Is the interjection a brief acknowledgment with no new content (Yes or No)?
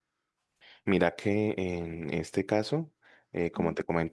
Yes